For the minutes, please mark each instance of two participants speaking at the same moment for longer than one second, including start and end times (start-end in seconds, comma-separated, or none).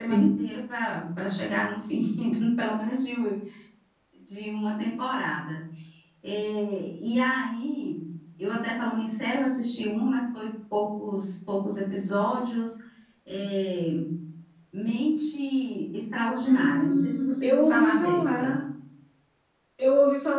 16.4-18.6